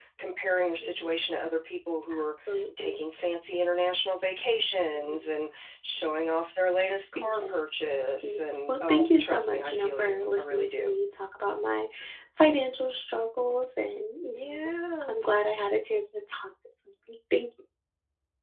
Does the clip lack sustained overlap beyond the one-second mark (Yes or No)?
No